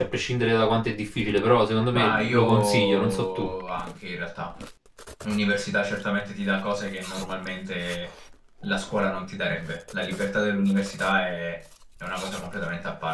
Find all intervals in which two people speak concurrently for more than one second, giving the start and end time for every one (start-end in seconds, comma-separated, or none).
1.9-3.5